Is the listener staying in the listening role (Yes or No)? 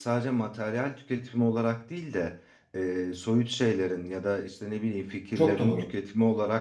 Yes